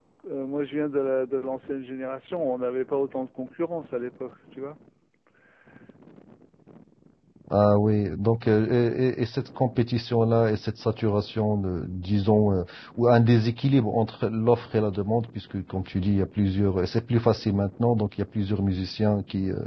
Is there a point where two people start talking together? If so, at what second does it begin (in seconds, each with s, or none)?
none